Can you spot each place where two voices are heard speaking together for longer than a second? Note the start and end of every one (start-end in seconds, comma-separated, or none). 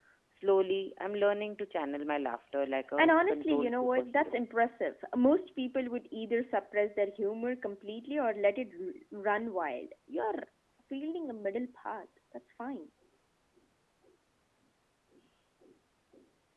3.0-4.4